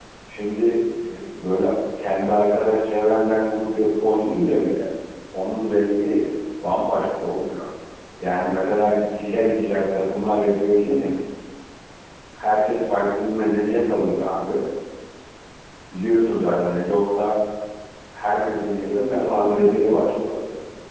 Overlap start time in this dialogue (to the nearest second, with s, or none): 19 s